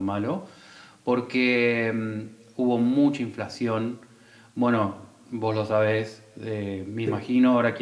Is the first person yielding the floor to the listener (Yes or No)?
No